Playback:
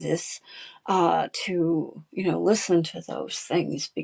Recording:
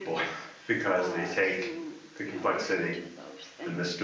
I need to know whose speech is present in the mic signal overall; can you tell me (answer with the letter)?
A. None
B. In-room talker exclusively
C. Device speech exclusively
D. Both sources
D